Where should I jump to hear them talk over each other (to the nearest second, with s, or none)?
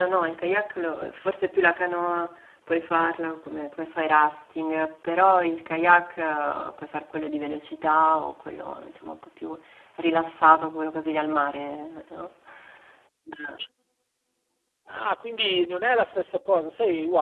none